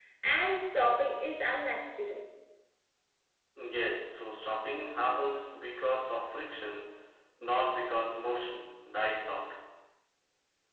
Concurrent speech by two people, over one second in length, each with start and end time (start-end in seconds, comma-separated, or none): none